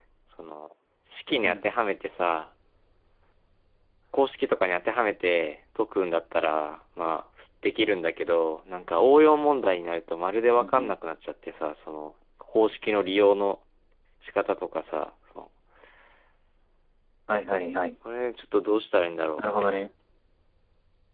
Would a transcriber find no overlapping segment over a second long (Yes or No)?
Yes